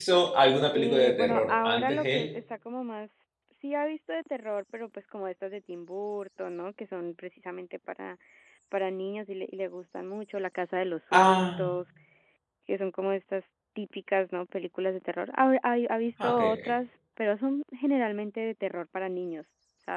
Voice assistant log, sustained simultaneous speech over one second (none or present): present